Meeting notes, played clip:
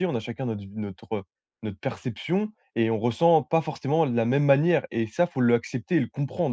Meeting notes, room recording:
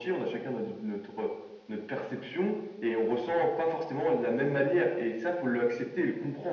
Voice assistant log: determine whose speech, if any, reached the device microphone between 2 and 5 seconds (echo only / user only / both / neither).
echo only